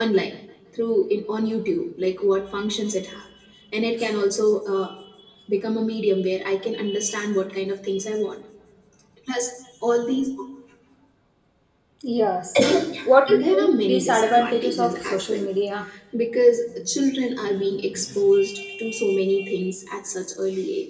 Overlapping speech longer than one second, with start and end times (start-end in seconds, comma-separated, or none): 13.3-15.4